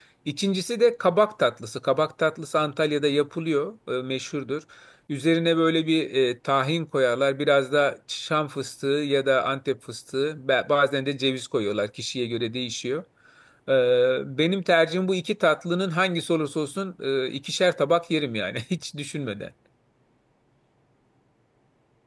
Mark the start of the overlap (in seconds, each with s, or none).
none